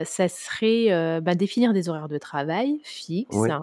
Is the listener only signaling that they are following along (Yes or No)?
Yes